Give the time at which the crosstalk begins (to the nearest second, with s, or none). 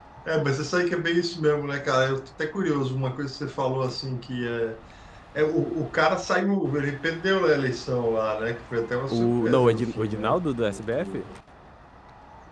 9 s